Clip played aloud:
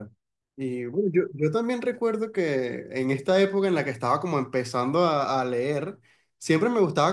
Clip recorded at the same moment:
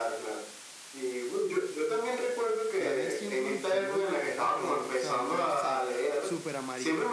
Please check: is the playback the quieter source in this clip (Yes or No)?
No